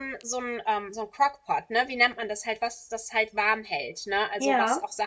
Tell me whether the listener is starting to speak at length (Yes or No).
No